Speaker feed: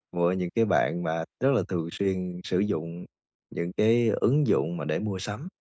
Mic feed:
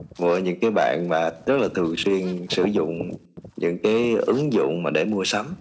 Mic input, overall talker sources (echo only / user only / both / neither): echo only